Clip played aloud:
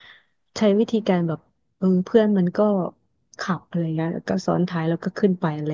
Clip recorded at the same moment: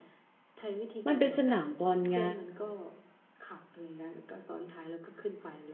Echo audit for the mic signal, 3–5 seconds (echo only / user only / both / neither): echo only